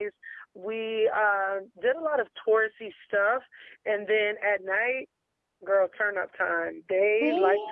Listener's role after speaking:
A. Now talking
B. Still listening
B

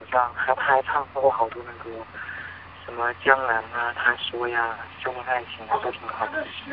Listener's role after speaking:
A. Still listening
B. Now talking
B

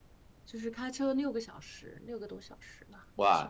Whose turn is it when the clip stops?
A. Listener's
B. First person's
A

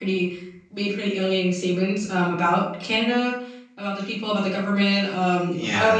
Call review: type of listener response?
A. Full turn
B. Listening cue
B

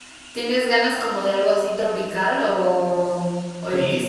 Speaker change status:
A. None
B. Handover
B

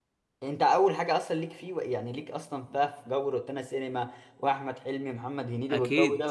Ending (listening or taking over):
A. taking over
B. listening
A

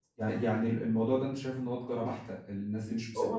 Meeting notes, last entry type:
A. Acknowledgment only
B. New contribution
A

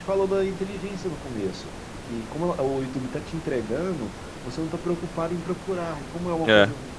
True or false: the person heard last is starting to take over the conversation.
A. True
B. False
B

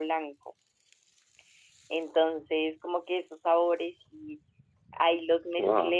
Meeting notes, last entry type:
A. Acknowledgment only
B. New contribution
A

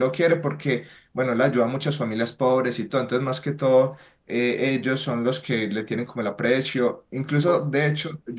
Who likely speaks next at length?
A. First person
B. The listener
A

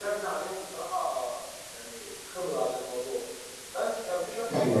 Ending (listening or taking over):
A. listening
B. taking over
A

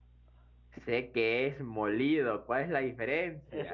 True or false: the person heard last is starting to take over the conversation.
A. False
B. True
B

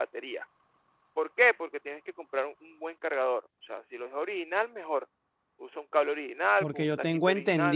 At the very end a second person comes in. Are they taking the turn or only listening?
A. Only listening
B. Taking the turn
B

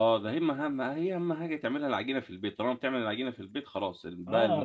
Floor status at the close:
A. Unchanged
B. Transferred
B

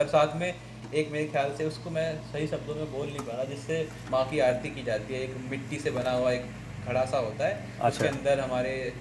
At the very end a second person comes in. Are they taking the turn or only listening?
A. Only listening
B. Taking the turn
A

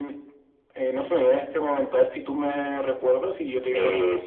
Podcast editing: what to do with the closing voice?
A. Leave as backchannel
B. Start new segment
B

